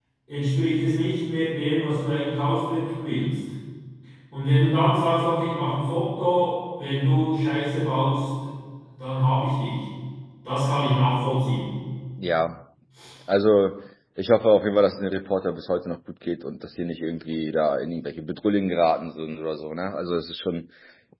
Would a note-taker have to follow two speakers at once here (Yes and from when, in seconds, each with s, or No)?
No